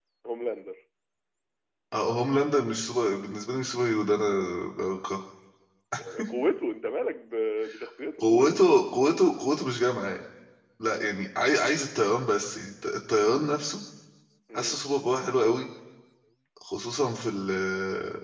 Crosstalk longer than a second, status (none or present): none